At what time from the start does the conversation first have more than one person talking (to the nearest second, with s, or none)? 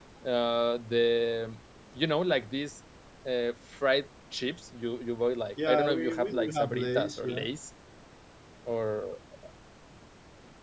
6 s